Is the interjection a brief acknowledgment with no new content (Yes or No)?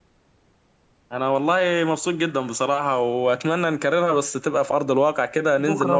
No